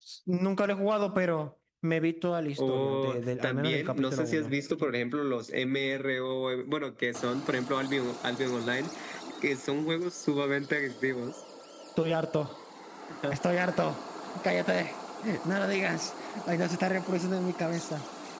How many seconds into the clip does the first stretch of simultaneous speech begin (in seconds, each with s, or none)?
2.6 s